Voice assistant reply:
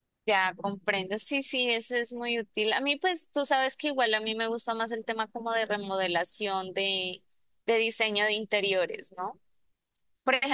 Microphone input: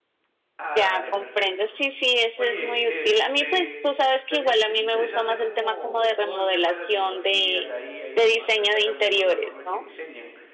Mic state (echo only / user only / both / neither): both